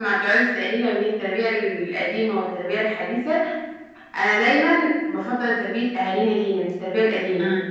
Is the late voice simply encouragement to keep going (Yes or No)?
No